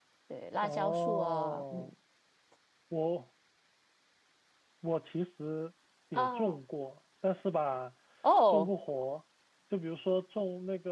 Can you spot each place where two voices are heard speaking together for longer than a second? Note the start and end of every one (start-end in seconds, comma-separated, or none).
0.6-1.9